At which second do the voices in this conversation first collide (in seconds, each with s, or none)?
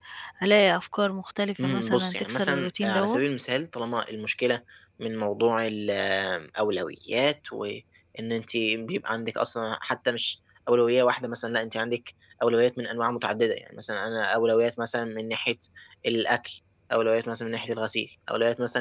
1.6 s